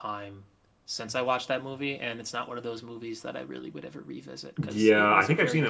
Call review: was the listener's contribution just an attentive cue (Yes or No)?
No